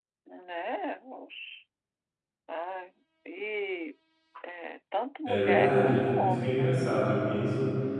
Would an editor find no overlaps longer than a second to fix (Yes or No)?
No